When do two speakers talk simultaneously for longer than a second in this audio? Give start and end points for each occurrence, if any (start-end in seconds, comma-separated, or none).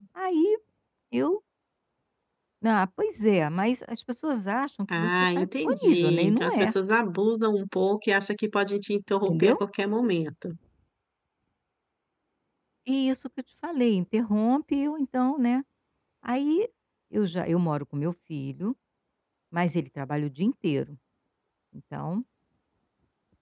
5.0-6.7